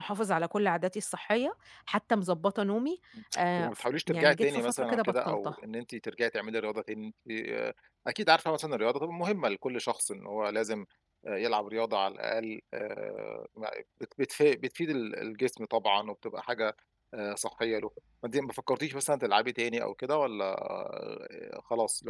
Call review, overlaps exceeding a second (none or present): present